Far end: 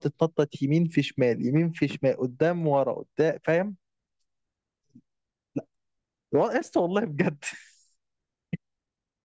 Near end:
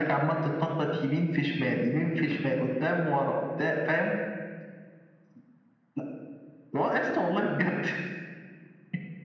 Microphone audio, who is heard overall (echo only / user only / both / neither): echo only